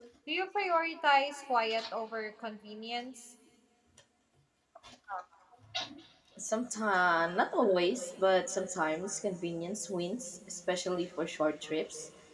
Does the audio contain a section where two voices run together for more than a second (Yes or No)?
No